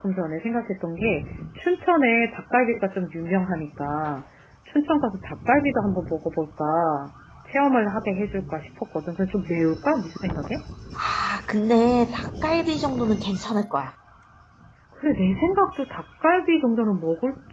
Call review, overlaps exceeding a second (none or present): none